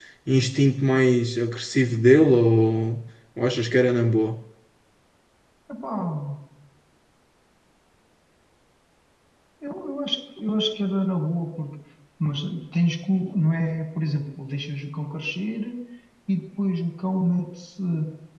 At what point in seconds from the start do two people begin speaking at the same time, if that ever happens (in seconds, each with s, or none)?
none